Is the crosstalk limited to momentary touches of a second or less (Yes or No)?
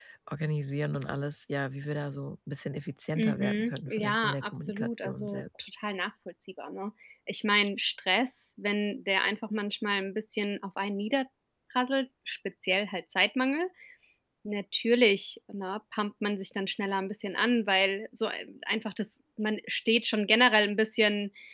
No